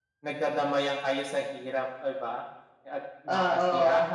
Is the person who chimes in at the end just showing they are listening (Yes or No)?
Yes